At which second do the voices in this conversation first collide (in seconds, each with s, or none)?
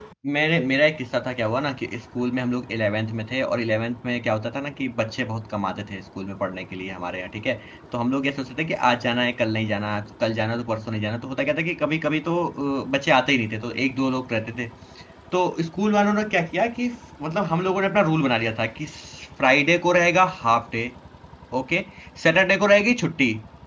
none